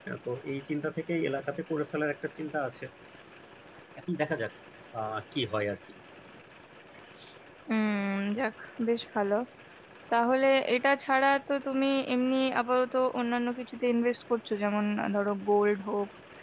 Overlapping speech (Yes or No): No